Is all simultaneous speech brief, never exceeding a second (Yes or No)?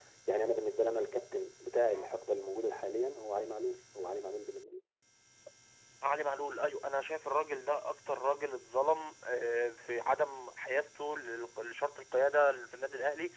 Yes